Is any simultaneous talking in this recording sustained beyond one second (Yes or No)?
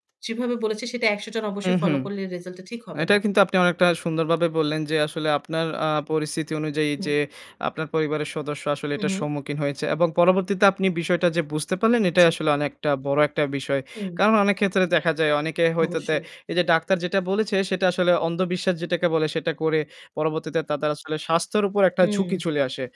No